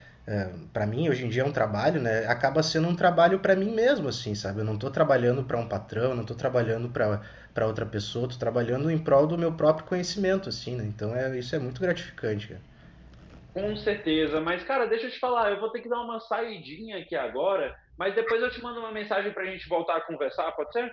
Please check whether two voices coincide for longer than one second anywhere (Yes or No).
No